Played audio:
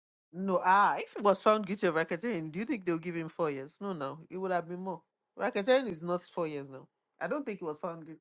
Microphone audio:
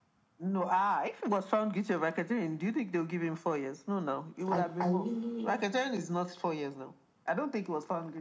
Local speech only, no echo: I, I really,

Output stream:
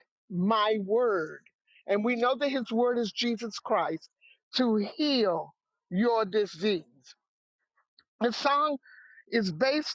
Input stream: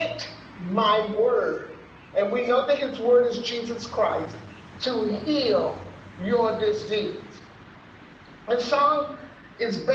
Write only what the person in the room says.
none

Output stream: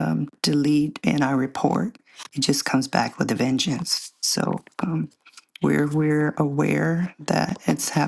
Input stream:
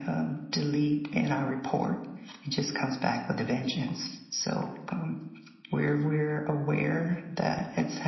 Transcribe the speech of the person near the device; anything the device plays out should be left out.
none

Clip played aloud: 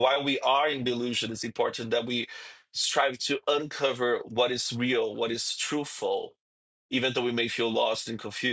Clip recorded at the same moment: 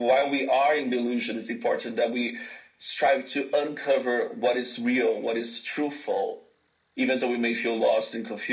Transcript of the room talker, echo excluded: none

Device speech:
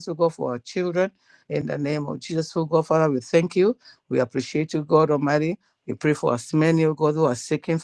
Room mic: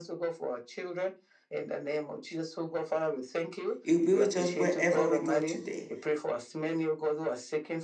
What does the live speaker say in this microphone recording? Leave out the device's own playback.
He will be with us wherever we go today.

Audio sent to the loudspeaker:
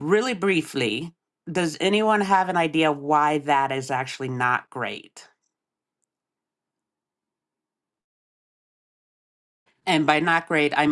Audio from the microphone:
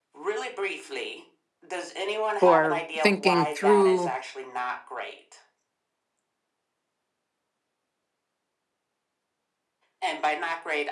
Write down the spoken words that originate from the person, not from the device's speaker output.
for thinking through,

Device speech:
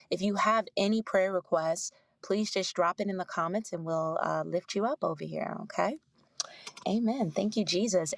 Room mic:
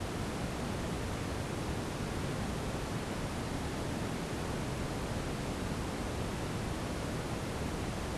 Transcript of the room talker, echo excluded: none

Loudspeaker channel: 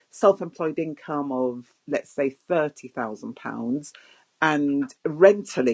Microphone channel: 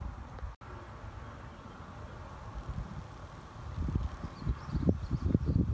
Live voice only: none

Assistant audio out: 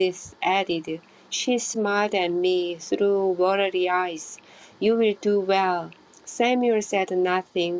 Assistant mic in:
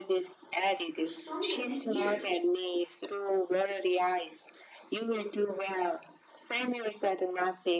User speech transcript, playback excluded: for so many years.

